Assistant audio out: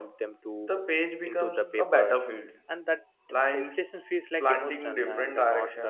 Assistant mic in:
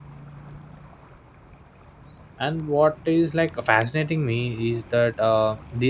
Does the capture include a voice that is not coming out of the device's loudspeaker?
Yes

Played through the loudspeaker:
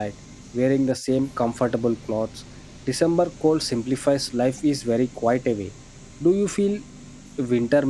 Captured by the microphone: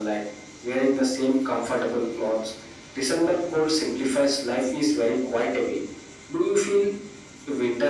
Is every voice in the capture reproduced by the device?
Yes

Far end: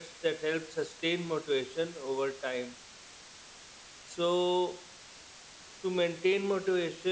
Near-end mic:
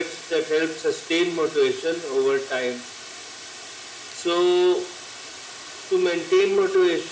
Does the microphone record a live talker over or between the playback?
No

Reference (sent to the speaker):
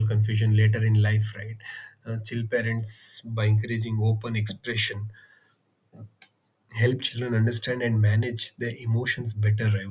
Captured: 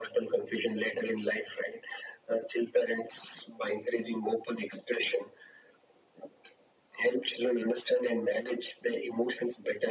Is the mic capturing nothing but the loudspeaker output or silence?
Yes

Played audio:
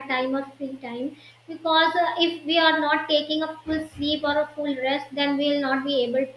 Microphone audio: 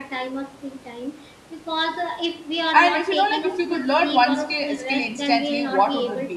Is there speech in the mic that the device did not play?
Yes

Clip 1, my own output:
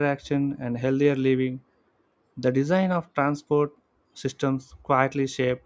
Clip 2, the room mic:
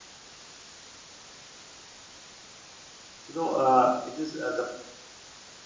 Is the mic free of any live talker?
No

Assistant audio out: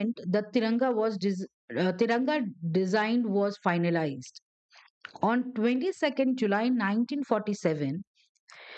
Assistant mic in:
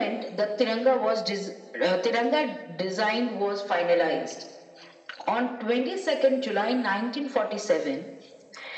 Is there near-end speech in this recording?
No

